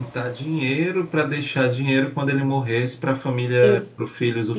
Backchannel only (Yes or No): No